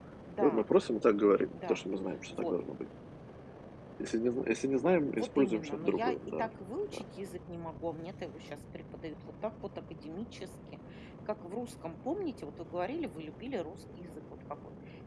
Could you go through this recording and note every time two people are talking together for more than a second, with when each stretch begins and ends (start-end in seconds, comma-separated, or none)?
5.1-6.5